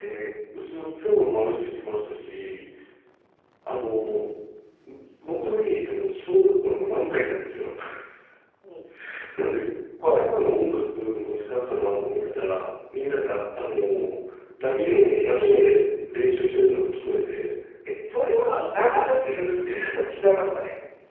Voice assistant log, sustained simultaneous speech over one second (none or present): present